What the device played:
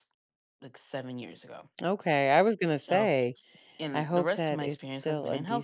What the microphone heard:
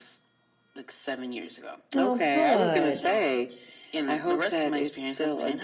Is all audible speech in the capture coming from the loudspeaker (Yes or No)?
No